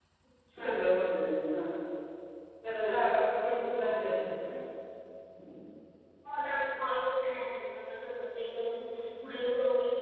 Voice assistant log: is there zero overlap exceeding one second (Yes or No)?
No